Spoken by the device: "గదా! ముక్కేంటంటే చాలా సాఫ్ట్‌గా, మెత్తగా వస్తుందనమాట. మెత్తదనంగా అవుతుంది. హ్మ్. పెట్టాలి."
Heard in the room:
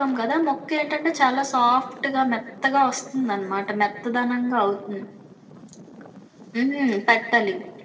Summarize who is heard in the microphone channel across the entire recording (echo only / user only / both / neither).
echo only